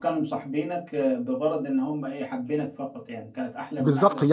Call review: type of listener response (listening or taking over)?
taking over